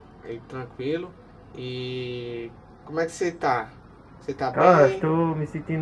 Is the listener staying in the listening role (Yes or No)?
No